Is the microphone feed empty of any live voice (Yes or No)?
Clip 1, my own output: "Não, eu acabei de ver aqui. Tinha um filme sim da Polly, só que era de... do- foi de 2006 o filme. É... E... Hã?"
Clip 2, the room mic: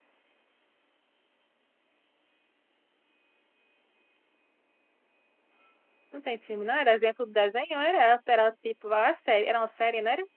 No